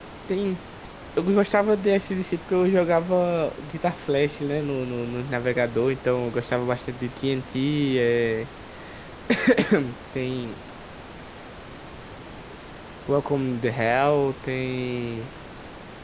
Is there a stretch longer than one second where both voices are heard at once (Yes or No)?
No